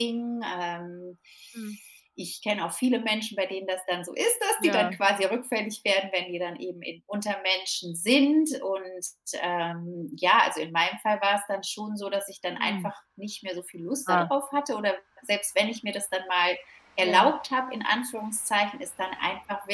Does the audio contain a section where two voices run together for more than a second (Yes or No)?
No